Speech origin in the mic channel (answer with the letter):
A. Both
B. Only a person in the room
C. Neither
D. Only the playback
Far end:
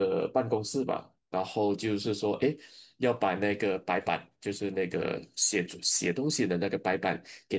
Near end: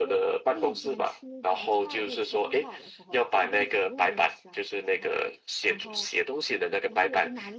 A